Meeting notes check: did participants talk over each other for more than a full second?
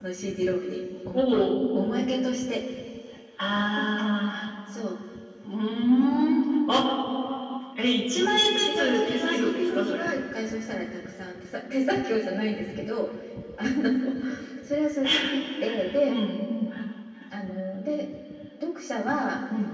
Yes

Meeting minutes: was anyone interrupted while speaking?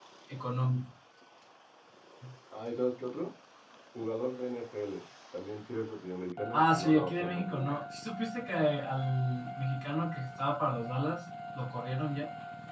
Yes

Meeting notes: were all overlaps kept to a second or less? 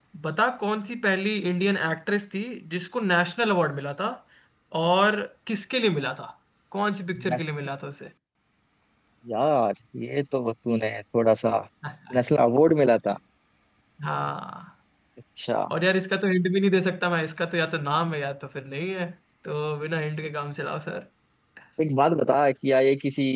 Yes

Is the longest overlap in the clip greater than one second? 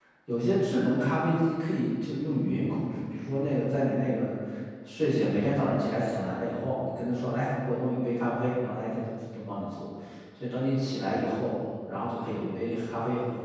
No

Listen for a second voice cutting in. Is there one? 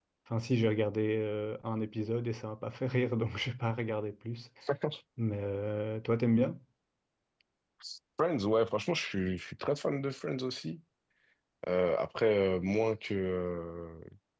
No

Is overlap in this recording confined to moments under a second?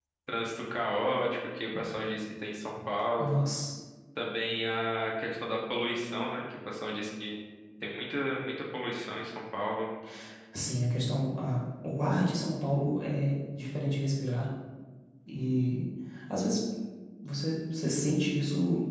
Yes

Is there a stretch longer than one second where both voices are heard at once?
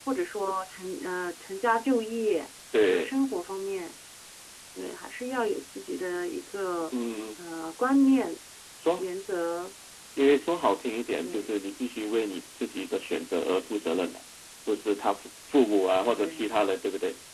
No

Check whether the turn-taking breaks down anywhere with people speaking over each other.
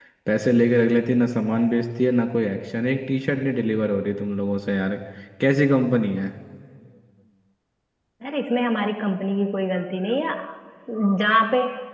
No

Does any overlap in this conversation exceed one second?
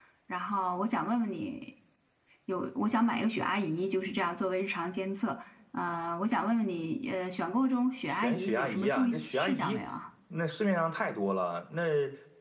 Yes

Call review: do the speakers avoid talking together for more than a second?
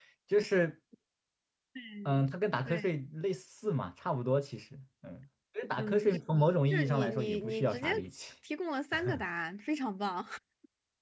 No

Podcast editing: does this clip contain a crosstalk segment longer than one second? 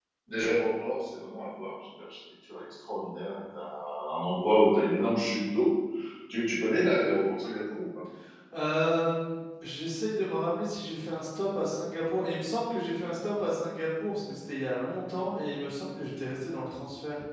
No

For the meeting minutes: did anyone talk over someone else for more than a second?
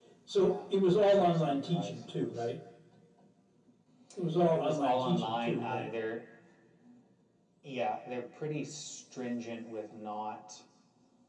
Yes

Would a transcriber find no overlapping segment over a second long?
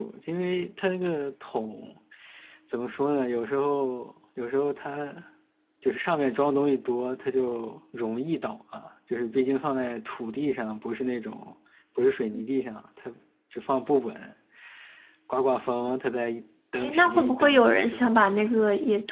No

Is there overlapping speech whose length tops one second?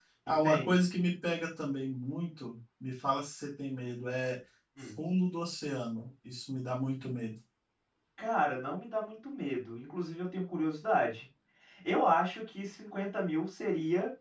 No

